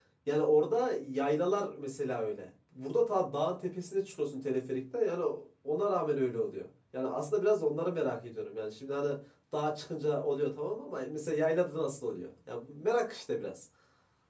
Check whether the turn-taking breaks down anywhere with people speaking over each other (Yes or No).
No